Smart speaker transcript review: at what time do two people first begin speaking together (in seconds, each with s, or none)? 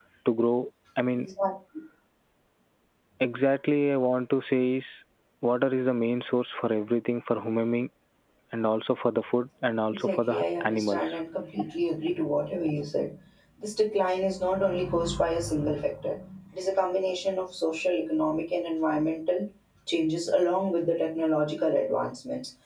9.9 s